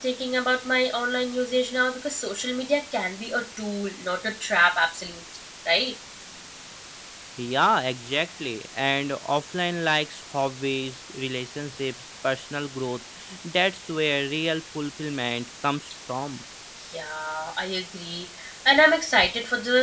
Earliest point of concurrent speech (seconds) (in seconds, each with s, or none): none